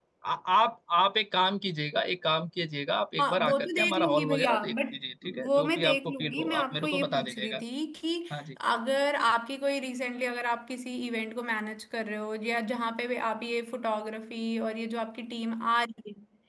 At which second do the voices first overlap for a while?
3.2 s

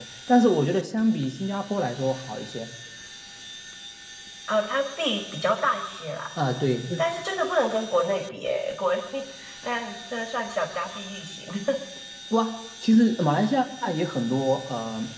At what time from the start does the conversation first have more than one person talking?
none

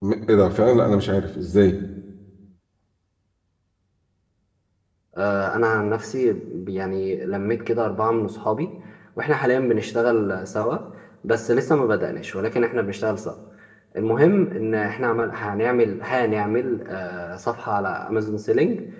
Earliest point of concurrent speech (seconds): none

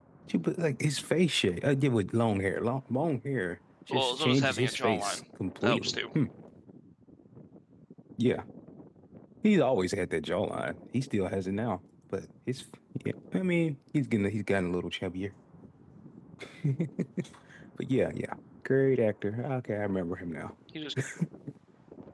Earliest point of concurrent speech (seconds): 3.9 s

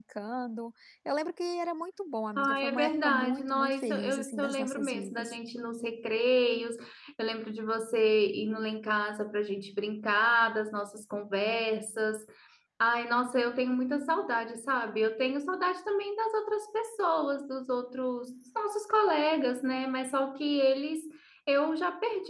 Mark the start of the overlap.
2.4 s

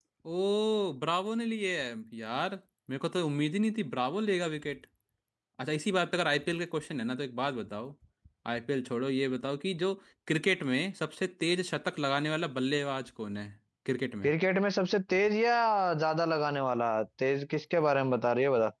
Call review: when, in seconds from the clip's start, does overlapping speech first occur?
none

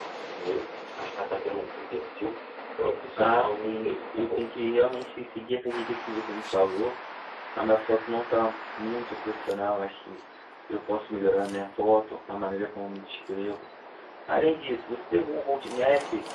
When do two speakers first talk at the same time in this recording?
3.2 s

